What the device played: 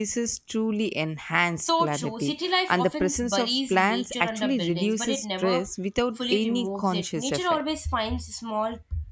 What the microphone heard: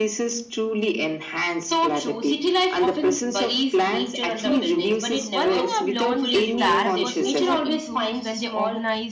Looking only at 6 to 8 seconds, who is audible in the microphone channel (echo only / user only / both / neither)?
both